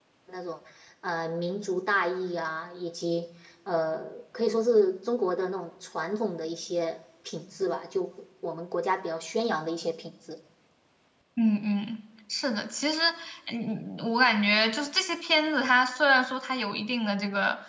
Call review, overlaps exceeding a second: none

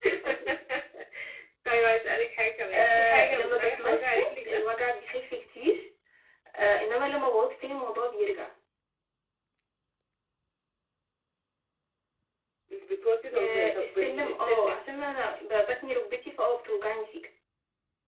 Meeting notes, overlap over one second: present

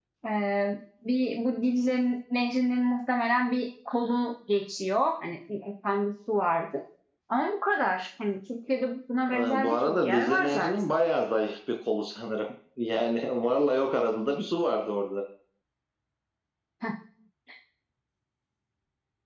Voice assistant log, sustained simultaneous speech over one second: present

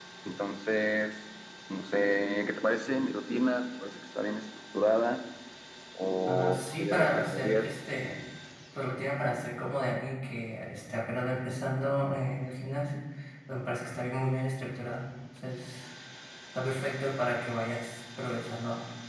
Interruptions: present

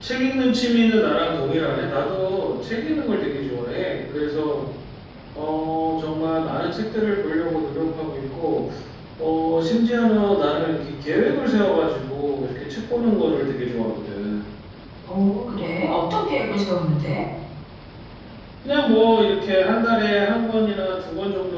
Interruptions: none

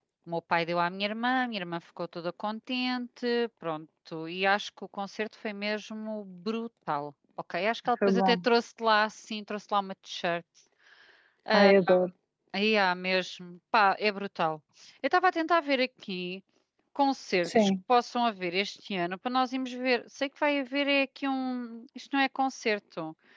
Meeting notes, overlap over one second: none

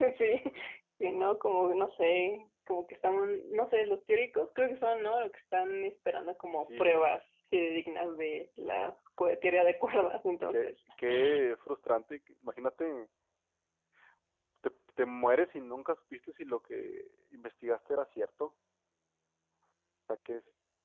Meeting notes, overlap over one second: none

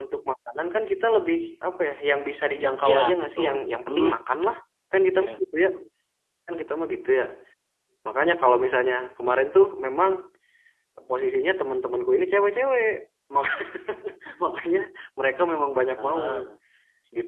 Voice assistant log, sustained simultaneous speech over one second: present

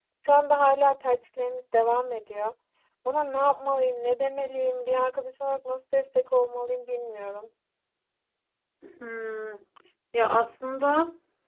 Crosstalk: none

